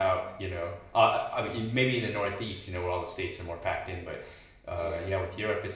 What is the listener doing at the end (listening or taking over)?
listening